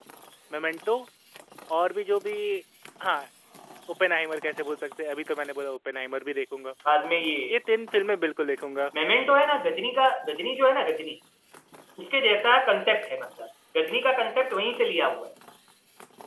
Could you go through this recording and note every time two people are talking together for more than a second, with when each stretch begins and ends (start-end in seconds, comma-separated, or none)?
none